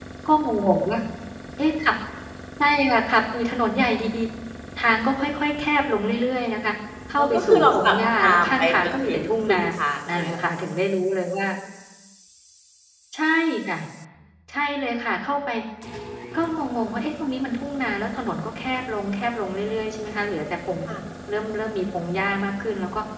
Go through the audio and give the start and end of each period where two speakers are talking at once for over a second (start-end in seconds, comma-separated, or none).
7.2-9.6